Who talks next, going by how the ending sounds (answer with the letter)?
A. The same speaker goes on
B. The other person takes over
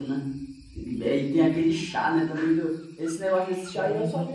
A